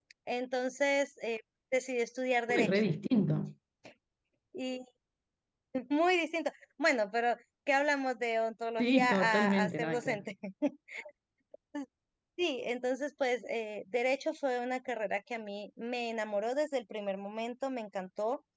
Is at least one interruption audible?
Yes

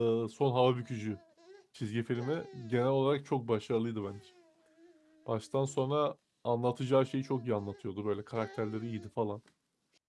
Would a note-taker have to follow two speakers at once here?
No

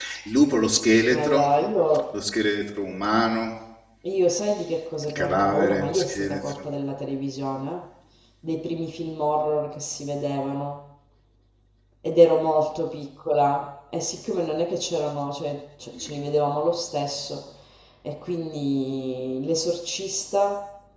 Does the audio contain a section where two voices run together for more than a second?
Yes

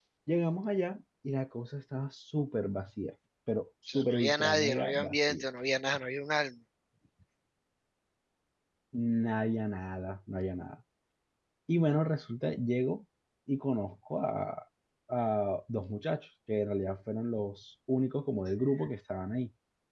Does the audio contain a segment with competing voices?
Yes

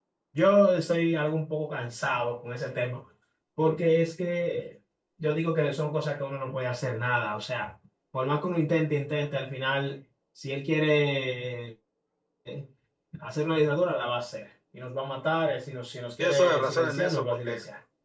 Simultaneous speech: Yes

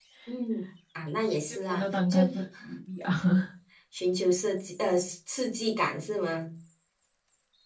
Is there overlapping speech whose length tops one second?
No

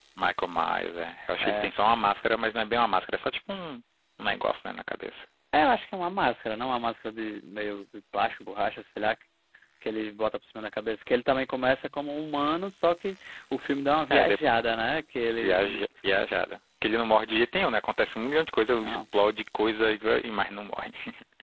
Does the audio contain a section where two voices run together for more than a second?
No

